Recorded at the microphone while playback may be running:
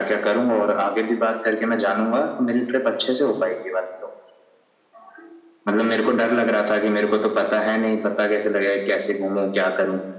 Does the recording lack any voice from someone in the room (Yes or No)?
Yes